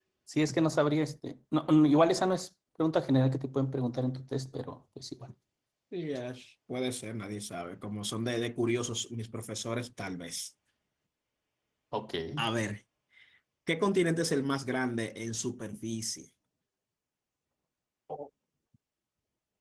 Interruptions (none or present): none